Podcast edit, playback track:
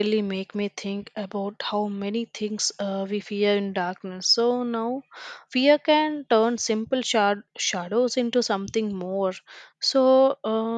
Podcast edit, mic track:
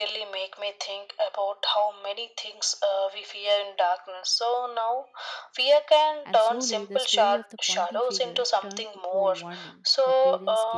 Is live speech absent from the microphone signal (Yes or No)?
No